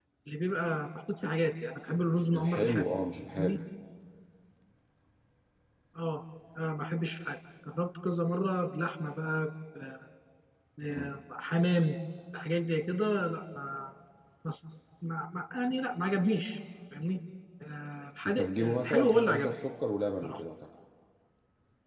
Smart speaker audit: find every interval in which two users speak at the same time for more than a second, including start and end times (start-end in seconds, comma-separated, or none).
18.4-19.6